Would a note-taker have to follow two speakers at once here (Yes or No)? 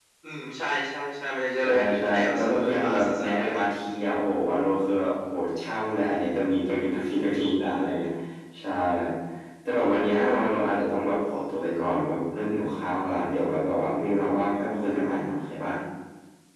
Yes